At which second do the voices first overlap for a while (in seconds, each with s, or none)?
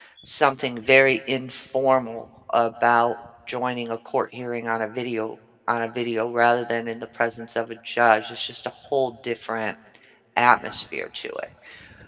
none